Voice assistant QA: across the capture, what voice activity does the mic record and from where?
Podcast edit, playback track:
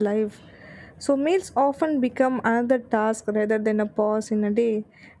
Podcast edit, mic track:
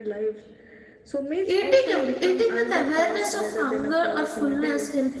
both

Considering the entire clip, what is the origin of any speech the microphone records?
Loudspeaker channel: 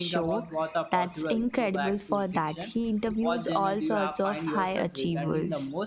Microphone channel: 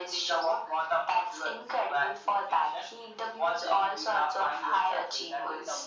echo only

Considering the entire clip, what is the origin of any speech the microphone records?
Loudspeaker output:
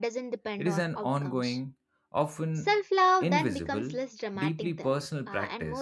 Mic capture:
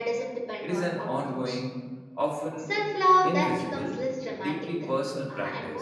echo only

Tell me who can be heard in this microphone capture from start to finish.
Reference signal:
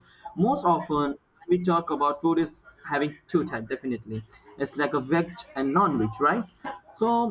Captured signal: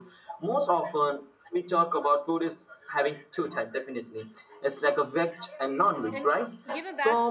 both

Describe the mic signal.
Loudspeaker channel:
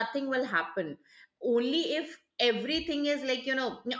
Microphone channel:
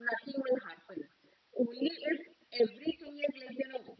echo only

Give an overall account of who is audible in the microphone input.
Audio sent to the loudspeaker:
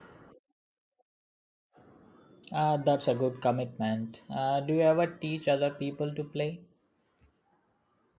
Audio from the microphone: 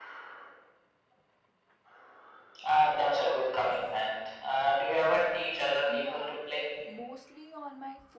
both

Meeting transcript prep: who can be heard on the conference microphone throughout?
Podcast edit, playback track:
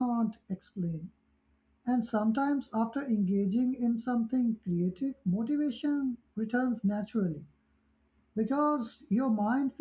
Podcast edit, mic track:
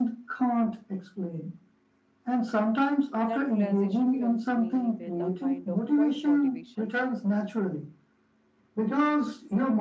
both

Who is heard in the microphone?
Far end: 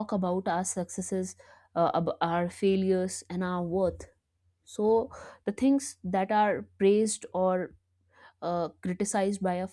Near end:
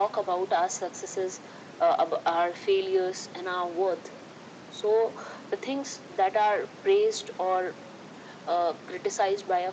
echo only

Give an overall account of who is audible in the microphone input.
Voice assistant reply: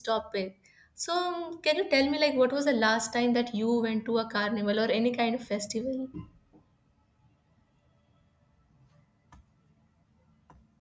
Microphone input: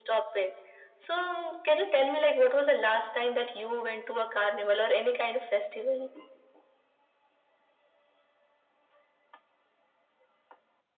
echo only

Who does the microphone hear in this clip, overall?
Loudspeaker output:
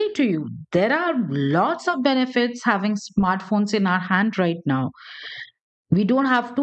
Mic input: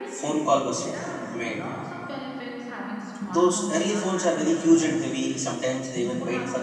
both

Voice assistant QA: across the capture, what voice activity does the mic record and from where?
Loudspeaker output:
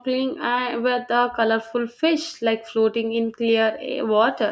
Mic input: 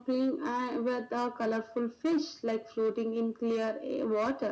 echo only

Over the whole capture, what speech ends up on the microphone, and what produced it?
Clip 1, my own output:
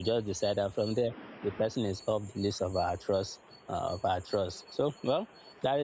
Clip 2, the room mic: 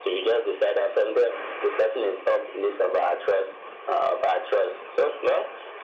echo only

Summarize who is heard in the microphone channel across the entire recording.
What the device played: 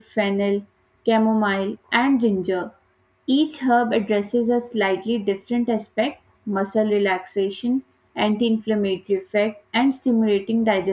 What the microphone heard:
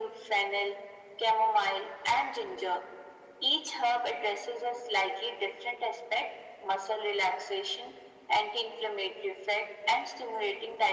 echo only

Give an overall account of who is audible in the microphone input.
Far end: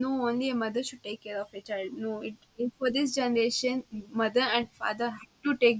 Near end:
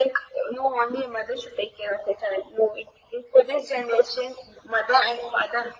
echo only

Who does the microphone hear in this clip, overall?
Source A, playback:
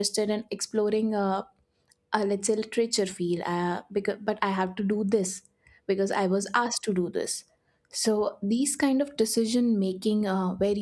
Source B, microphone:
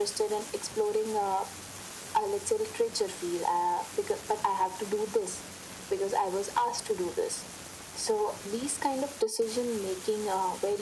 echo only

